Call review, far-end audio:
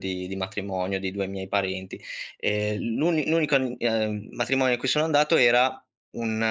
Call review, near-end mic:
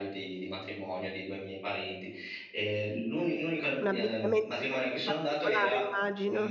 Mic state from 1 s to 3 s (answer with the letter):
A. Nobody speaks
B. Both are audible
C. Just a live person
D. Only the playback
D